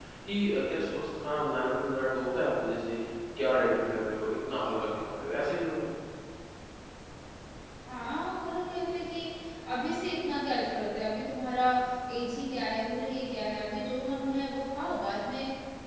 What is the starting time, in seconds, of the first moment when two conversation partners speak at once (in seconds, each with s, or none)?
none